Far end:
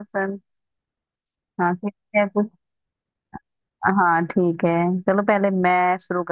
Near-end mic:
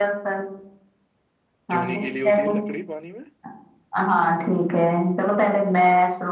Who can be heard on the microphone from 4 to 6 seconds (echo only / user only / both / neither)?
echo only